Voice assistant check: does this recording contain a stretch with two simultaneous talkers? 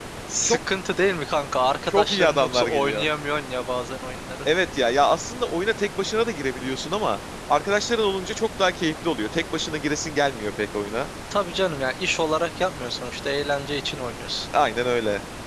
Yes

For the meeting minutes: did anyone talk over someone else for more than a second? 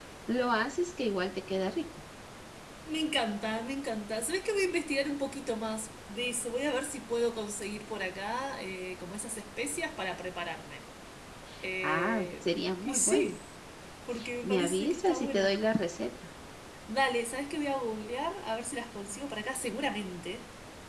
Yes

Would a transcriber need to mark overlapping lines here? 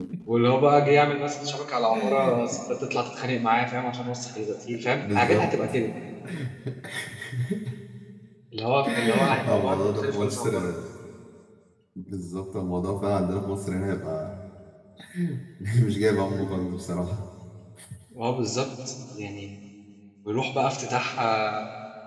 Yes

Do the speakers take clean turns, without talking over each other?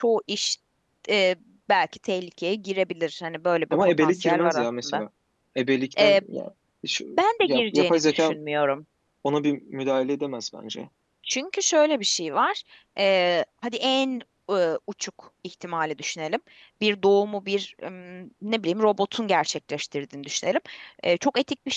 No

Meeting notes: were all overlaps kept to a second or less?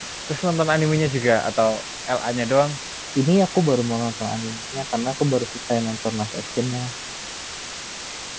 Yes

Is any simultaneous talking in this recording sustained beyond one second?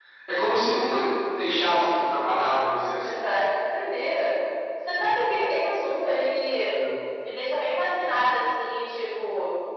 No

